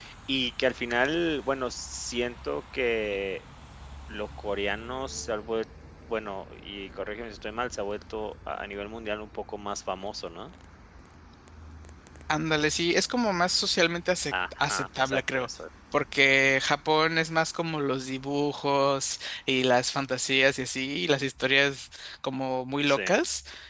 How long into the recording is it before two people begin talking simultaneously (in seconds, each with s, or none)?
14.3 s